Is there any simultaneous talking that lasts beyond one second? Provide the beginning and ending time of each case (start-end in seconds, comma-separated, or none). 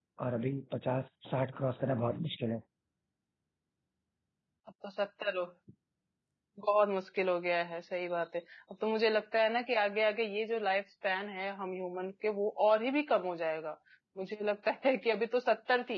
none